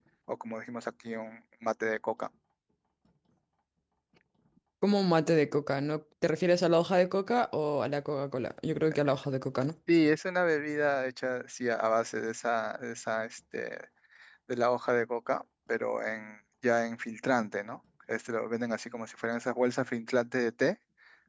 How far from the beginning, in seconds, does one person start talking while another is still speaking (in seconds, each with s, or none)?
none